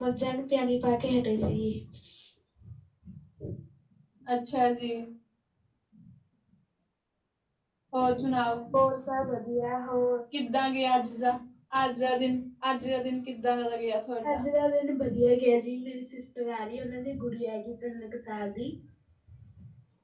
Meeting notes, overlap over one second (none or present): none